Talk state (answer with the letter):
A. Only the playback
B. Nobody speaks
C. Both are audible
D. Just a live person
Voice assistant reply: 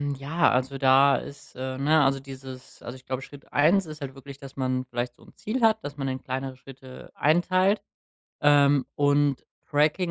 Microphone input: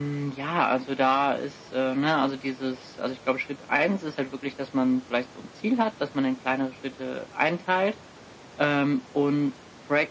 A